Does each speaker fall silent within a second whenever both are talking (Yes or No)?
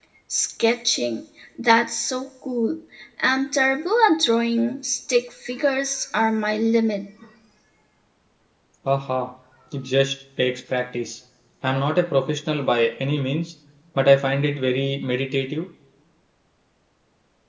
Yes